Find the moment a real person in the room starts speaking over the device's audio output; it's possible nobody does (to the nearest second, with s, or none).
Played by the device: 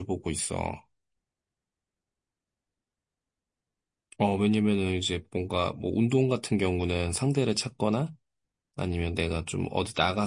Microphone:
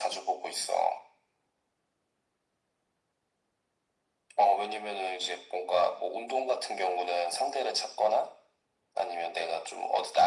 none